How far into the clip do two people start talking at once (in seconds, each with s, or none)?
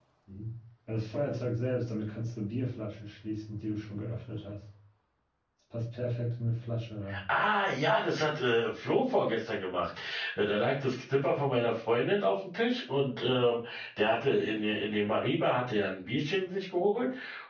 none